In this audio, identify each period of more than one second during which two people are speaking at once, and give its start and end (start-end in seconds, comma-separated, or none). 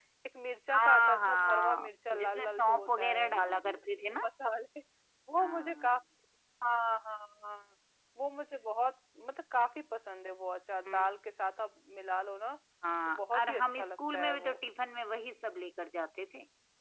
0.7-3.3, 13.1-14.6